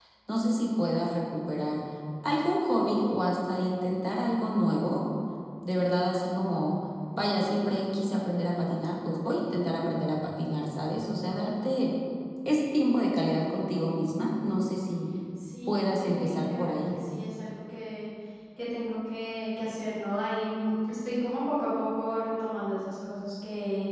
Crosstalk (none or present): present